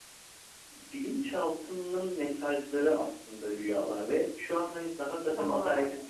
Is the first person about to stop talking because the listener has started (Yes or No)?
No